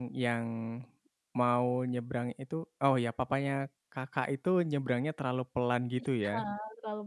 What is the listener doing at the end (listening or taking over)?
taking over